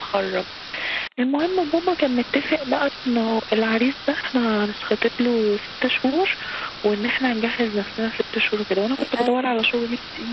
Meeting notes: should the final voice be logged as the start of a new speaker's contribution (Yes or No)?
No